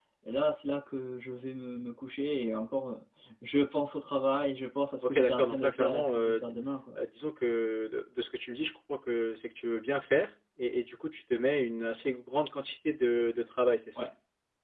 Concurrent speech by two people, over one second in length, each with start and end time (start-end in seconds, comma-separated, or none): 5.0-6.4